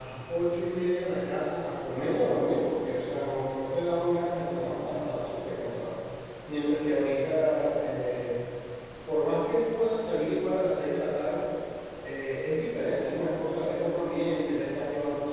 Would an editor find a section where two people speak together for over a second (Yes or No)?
No